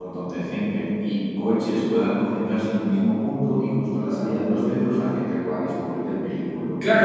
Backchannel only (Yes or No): No